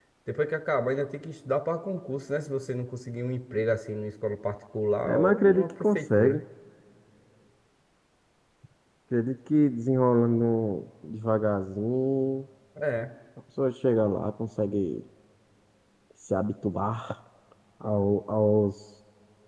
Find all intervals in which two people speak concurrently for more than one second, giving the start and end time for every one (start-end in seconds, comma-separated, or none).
5.0-6.4